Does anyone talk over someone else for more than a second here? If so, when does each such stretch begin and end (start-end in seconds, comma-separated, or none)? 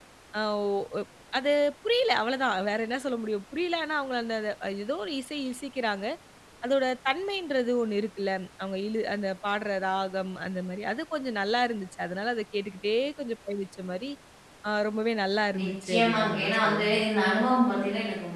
15.6-17.0